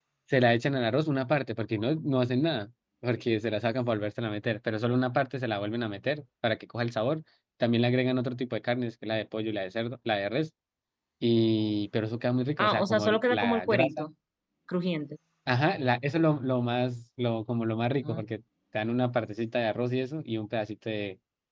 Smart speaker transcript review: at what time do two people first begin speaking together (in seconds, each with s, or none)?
12.6 s